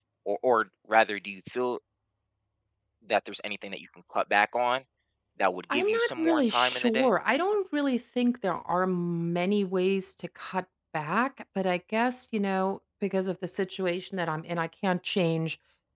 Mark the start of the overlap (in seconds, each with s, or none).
5.7 s